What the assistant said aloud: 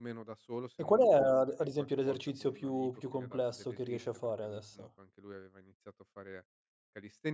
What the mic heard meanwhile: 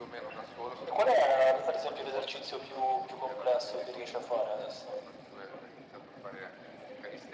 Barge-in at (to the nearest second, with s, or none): none